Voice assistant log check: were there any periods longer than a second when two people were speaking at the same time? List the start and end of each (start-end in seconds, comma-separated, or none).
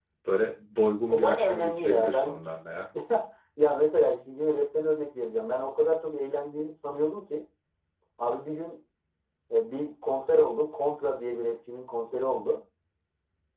1.1-2.4